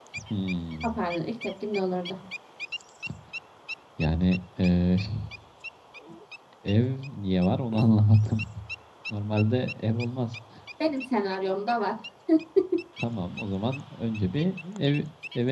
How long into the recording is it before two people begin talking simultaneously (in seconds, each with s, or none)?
none